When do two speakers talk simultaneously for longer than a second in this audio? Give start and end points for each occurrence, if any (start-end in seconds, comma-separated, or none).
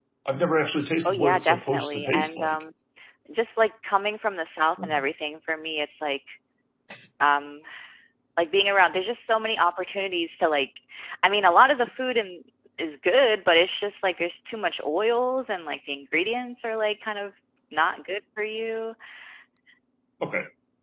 1.0-2.6